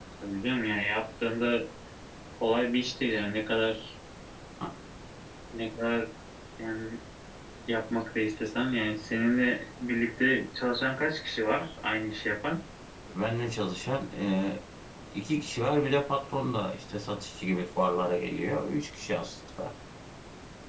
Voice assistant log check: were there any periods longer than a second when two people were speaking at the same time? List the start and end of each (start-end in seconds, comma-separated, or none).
none